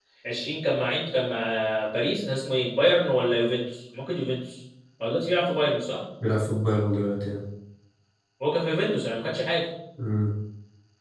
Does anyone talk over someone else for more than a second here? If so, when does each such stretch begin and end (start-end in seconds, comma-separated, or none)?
none